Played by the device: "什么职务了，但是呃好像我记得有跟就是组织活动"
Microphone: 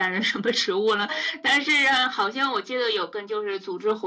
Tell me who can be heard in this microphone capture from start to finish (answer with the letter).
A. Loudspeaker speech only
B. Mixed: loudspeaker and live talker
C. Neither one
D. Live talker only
B